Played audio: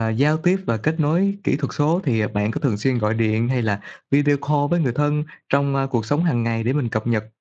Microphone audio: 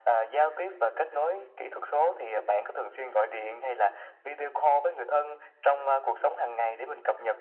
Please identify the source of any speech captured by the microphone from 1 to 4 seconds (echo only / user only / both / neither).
echo only